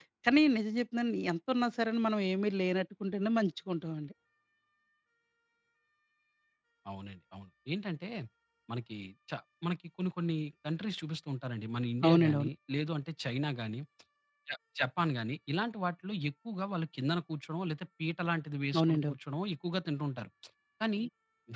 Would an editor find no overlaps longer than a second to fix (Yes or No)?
Yes